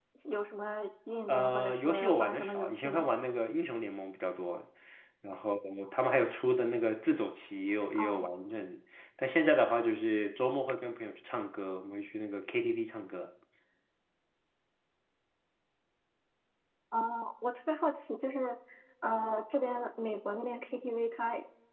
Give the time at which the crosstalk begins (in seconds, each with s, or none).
1.3 s